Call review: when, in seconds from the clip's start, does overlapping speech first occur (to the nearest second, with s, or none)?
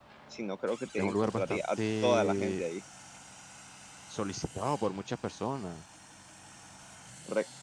1 s